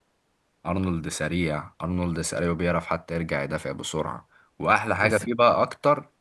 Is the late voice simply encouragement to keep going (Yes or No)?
Yes